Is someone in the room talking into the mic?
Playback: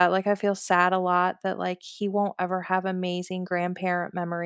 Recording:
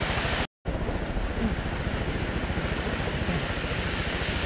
No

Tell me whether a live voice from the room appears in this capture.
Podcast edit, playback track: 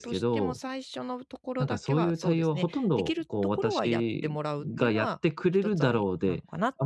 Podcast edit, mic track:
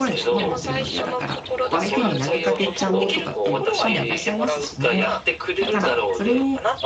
Yes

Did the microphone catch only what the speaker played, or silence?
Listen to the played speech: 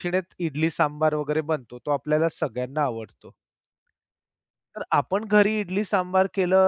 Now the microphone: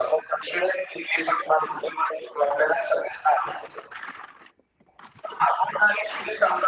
Yes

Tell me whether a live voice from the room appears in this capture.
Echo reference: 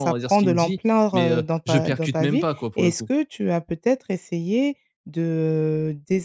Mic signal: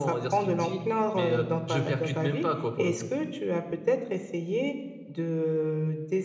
No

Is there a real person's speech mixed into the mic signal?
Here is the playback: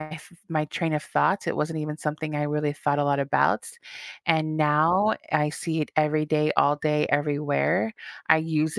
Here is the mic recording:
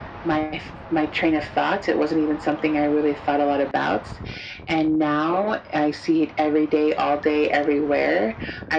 No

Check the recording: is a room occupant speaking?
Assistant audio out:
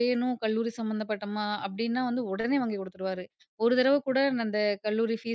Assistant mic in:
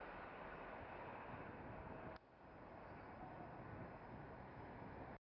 No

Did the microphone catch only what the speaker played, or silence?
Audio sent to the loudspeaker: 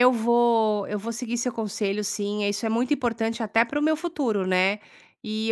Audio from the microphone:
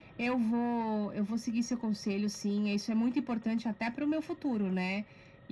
Yes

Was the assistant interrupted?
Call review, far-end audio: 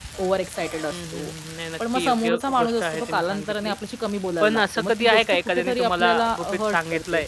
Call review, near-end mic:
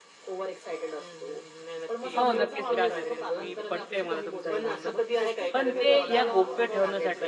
Yes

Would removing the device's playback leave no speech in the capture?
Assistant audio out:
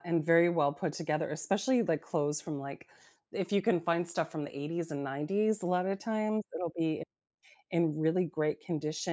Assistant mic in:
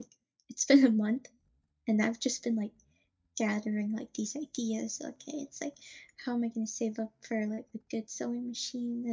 No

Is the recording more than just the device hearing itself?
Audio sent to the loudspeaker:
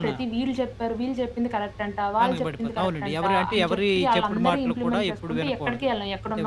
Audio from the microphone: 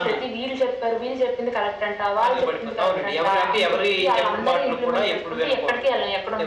No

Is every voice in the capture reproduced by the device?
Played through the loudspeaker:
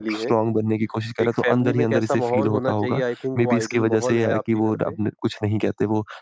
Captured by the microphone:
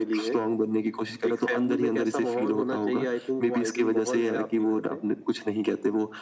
Yes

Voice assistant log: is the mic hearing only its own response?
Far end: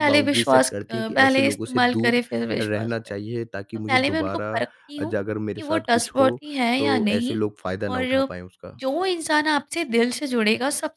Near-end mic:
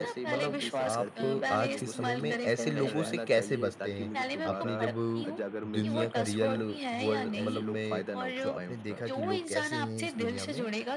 No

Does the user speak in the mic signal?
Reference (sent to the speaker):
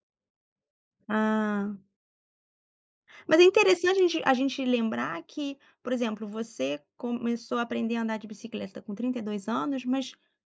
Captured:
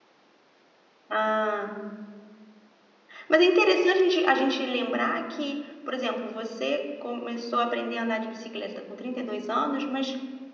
No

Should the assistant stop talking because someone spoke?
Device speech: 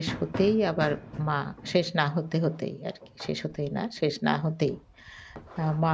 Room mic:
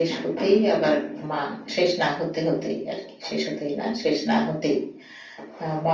No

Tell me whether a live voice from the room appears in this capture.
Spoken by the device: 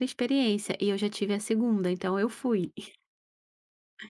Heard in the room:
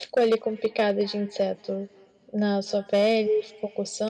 Yes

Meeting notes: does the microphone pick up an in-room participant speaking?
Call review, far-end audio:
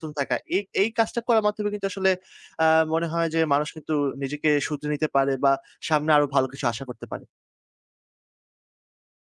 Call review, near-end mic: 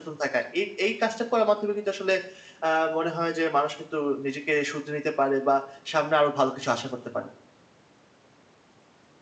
No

